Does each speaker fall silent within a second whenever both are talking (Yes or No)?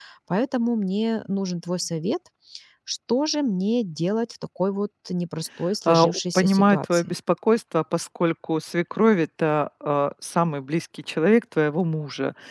No